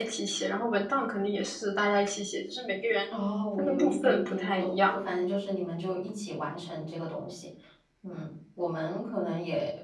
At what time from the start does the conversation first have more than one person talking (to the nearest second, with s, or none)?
4 s